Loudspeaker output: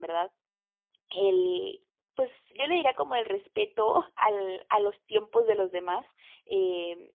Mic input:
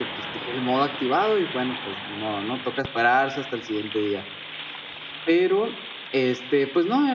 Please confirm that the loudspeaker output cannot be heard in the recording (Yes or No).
Yes